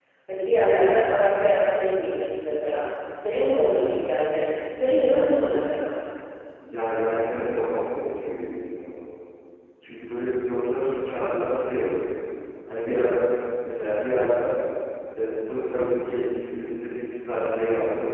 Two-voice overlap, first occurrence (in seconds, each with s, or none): none